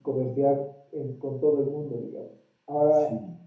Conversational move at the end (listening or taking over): listening